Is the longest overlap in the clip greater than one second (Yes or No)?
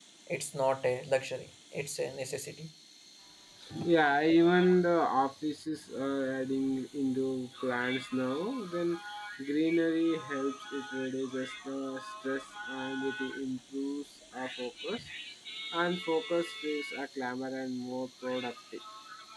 No